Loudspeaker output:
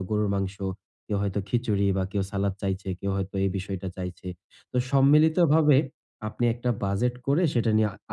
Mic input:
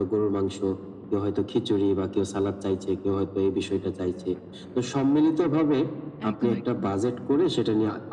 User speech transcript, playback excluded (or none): একদম, একদম।